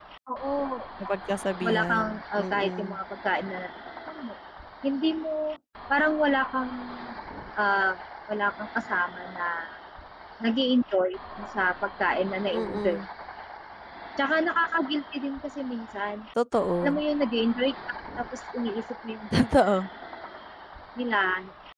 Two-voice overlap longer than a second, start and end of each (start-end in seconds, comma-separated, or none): 1.6-3.0